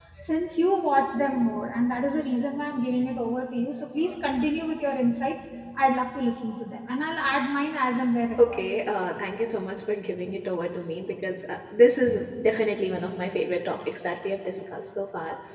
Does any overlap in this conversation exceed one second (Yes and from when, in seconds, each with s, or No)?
No